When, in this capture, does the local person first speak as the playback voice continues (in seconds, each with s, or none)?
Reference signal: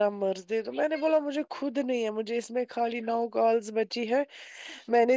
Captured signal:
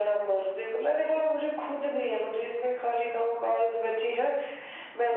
none